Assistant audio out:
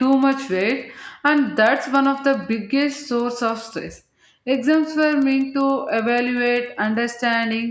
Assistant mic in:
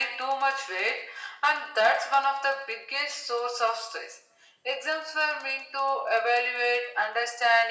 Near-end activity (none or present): none